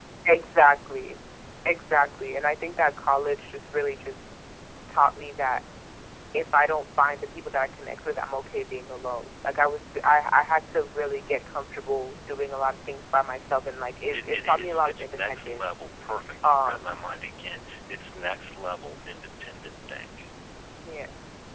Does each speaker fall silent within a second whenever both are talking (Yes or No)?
No